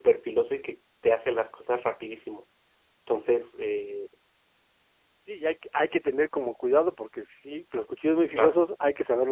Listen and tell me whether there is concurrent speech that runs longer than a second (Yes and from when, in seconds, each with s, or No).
No